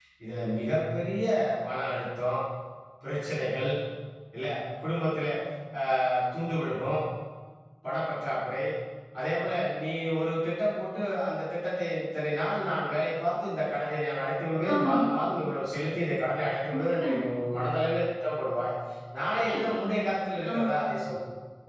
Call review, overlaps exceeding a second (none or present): none